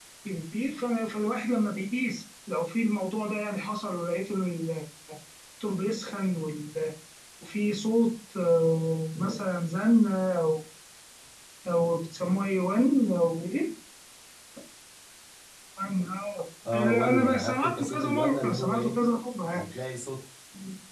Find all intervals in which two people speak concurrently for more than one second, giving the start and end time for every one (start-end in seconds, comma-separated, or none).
16.7-18.9